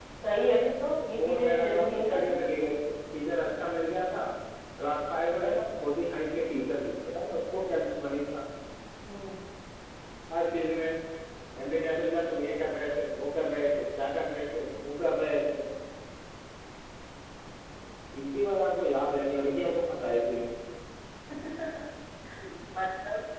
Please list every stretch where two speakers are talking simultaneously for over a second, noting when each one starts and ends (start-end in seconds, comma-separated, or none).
1.2-2.4